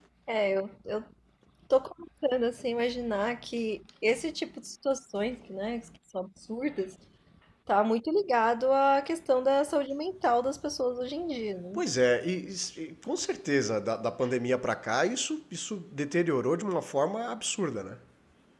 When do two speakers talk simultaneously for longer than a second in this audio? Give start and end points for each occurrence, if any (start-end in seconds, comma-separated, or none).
none